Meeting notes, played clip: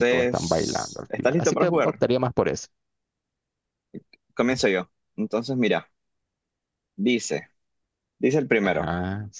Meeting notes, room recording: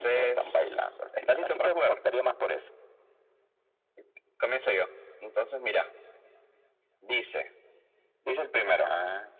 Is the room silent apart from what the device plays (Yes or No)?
Yes